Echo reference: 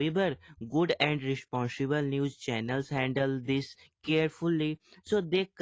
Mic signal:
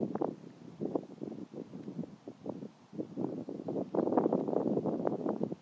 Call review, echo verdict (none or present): none